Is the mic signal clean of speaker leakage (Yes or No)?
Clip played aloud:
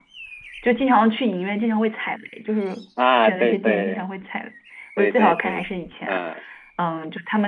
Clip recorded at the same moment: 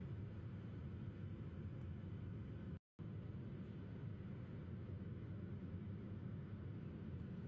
Yes